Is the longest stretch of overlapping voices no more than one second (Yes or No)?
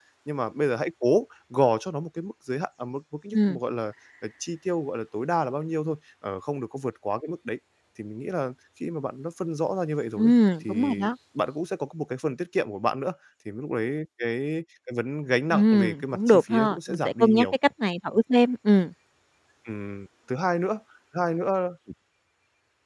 No